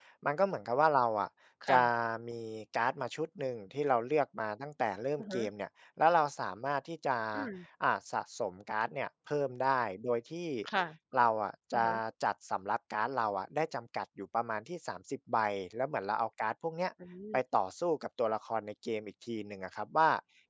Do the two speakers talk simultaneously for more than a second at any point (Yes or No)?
No